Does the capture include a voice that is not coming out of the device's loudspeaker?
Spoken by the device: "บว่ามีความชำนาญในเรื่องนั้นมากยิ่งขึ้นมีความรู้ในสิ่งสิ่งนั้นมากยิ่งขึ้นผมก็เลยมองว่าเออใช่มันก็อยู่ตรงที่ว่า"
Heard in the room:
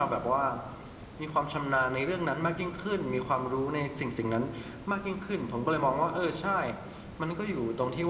No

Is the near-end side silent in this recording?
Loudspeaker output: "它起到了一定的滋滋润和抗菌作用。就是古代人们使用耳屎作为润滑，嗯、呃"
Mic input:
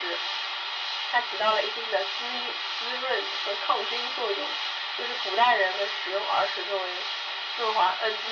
Yes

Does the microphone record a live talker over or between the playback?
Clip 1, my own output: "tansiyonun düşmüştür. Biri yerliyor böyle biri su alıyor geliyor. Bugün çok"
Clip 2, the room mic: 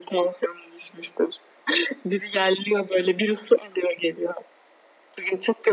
No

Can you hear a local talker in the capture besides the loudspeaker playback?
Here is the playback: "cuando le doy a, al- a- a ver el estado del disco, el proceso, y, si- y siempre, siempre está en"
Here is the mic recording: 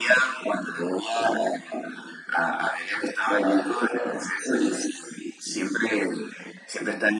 No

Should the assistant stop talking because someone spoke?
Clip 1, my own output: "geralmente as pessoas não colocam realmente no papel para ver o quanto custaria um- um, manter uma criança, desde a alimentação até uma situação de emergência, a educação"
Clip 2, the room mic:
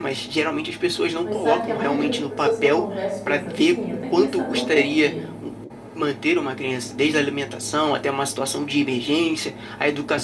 Yes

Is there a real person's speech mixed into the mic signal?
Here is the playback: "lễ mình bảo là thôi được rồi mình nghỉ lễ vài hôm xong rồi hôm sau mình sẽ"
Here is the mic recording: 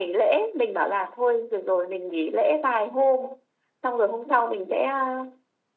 No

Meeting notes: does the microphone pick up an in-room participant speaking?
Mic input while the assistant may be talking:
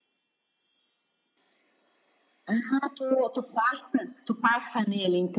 No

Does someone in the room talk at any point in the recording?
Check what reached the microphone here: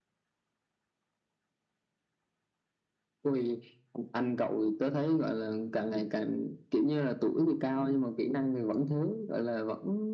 No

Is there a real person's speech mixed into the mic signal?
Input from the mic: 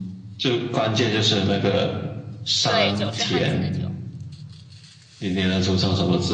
Yes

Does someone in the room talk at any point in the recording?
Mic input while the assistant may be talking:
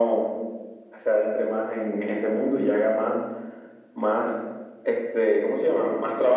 No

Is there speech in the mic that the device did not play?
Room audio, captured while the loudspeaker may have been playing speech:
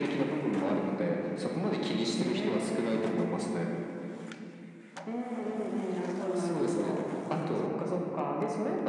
No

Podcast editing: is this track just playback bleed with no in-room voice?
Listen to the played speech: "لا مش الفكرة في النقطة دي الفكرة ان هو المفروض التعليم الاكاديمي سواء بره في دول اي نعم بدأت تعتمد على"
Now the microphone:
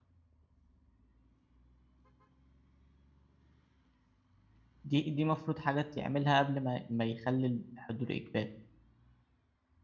No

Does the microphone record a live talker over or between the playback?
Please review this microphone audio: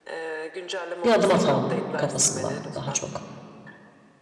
Yes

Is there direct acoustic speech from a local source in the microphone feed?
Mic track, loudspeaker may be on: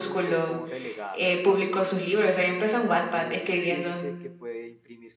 Yes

